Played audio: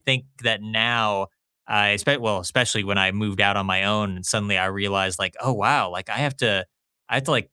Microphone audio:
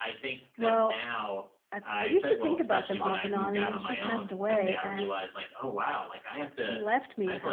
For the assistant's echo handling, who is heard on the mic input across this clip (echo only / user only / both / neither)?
both